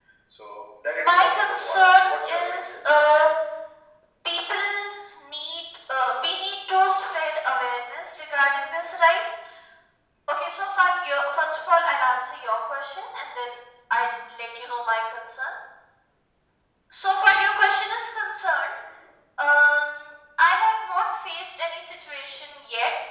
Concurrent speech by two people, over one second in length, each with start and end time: 1.0-3.3

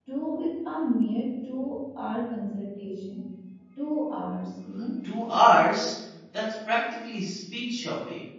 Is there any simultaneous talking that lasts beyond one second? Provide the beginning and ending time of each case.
none

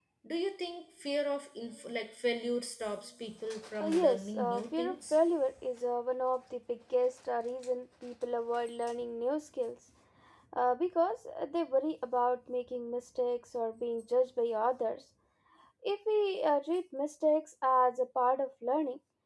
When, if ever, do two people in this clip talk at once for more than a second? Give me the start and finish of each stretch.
3.8-5.2

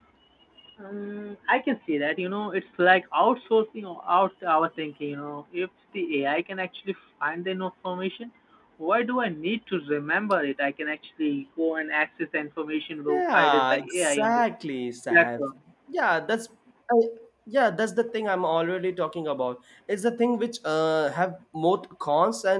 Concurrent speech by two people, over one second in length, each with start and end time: 13.1-14.4

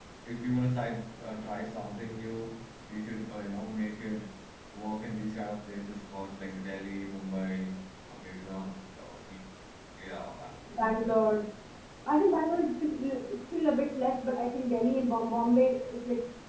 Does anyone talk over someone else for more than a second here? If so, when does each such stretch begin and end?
none

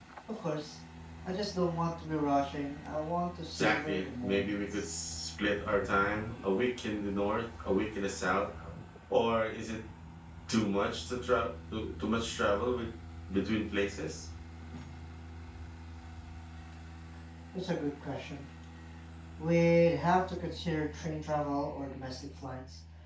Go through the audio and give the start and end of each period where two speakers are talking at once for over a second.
3.5-4.9

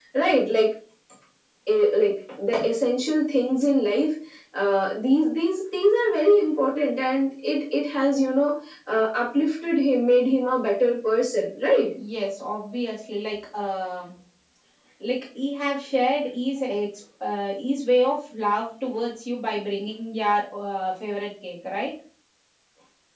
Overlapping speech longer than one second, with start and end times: none

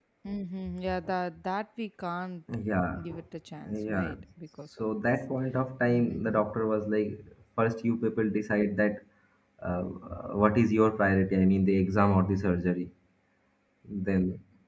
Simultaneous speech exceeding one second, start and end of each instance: none

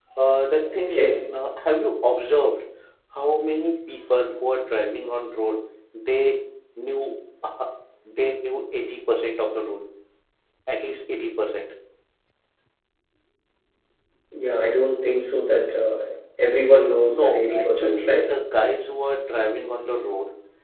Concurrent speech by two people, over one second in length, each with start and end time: 17.1-18.3

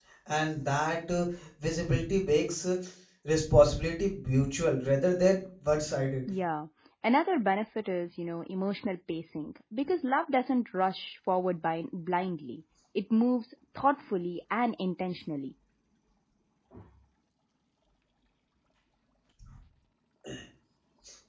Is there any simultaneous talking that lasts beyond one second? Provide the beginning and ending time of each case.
none

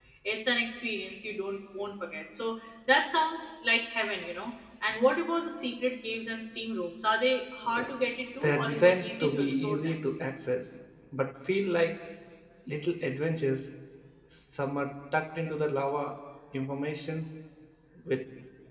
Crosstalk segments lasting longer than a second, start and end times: 8.4-9.9

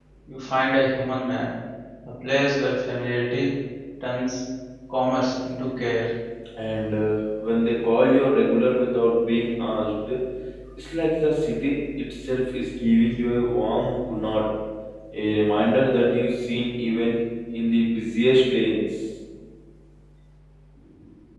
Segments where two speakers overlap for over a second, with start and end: none

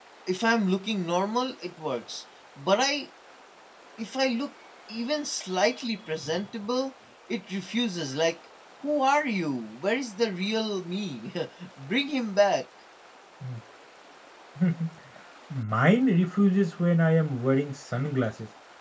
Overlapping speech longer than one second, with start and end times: none

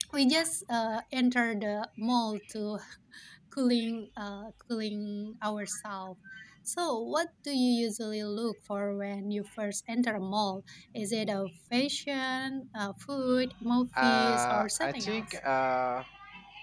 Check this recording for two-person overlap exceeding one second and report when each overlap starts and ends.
14.0-15.4

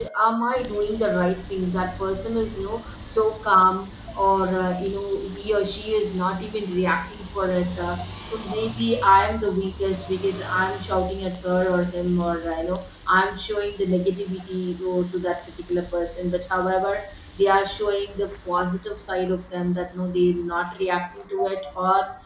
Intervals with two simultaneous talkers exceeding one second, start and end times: none

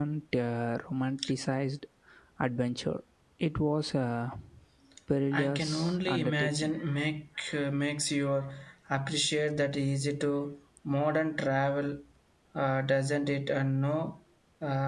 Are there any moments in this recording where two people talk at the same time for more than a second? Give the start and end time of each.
5.3-6.8

